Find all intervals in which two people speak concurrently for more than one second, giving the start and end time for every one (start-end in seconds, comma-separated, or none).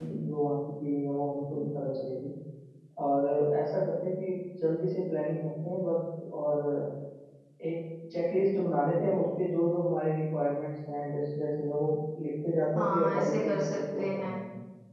12.8-14.4